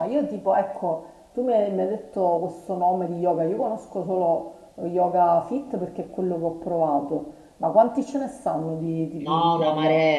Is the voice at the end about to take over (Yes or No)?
Yes